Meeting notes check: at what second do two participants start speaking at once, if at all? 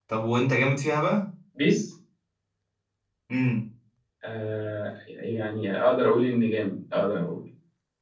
none

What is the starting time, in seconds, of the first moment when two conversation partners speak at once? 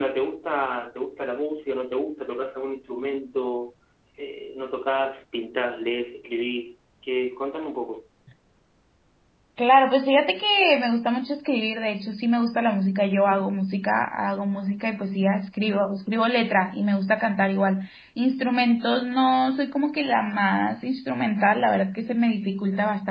none

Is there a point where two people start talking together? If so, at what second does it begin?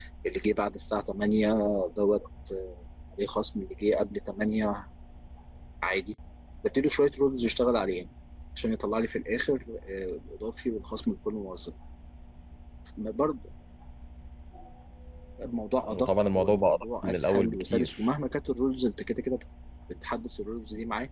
15.9 s

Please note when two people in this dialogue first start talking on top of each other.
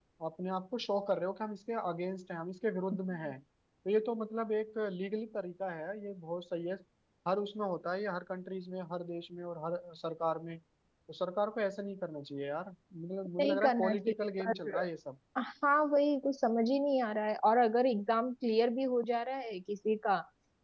13.4 s

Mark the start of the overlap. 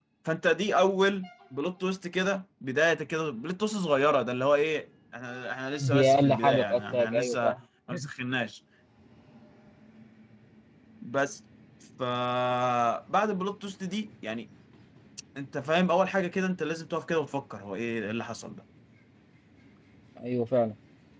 5.8 s

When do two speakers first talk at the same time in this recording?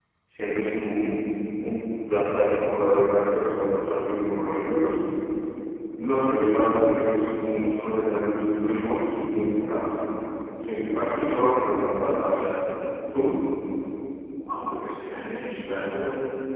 none

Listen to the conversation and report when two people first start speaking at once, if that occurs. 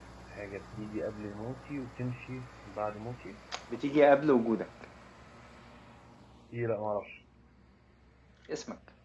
none

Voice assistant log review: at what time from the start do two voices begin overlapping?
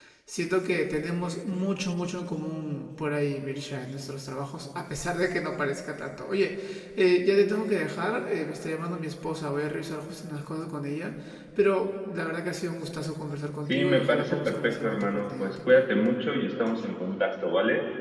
13.7 s

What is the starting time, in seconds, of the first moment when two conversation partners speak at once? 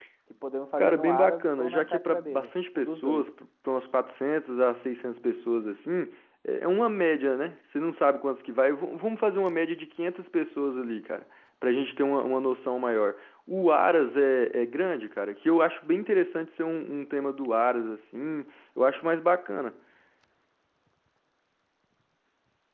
0.8 s

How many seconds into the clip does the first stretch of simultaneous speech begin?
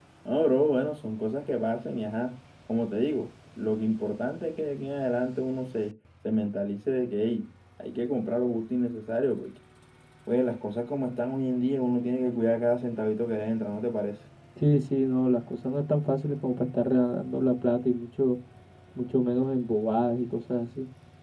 none

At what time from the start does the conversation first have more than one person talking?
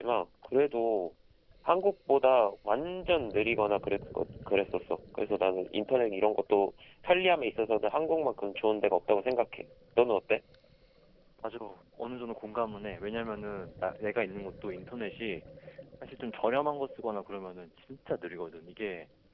none

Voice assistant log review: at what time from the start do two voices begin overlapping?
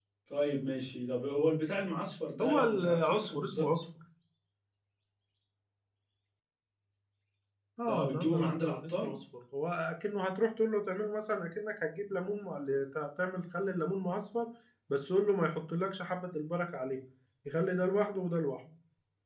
2.4 s

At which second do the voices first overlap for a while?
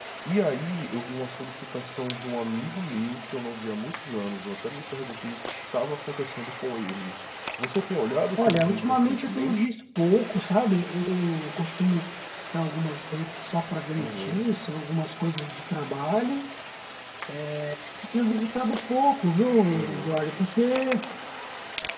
8.4 s

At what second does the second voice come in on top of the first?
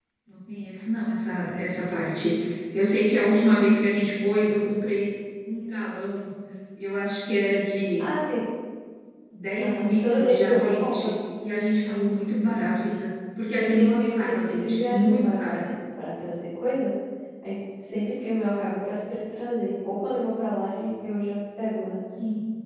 9.6 s

